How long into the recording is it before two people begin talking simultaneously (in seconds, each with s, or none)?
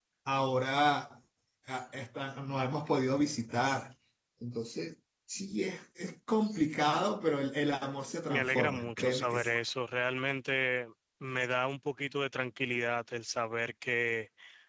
8.3 s